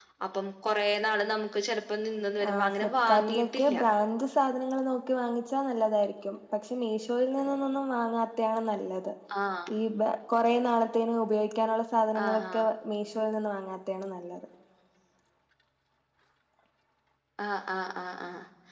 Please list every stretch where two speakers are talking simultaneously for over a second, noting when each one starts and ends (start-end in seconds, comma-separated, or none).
2.5-3.8